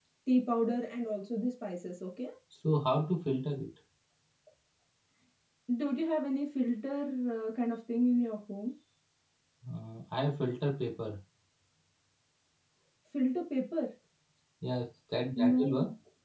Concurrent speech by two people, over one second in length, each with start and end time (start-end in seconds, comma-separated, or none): none